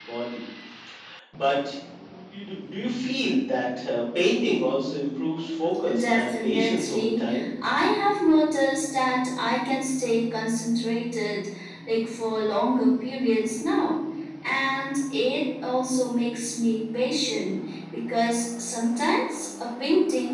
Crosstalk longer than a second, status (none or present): present